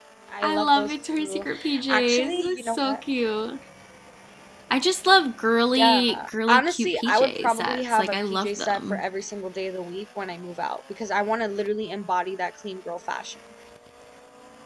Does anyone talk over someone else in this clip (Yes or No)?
Yes